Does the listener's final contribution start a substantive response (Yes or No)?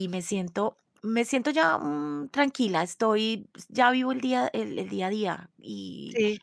No